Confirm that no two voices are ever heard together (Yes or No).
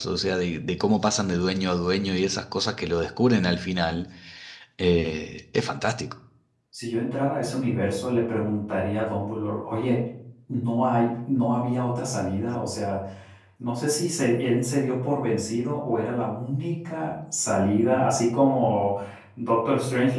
Yes